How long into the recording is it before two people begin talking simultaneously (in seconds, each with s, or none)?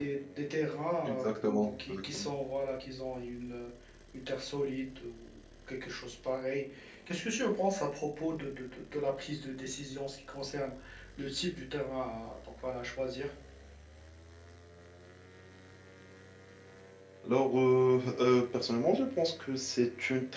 1.1 s